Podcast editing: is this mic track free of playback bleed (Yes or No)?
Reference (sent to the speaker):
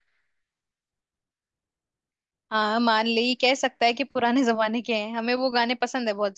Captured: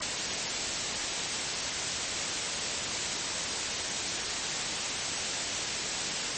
Yes